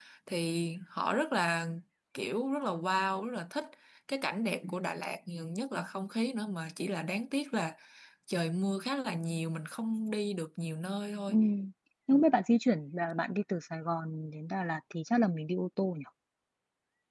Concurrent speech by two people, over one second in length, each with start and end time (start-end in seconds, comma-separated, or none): none